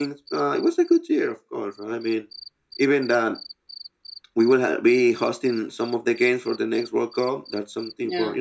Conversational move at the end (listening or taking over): listening